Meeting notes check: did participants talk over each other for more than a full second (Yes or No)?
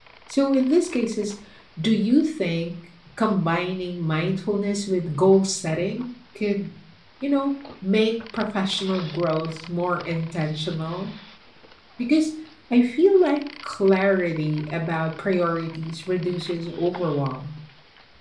No